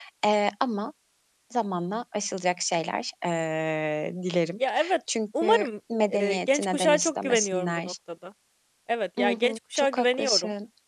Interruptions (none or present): present